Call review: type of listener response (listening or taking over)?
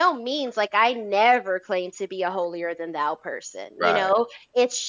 listening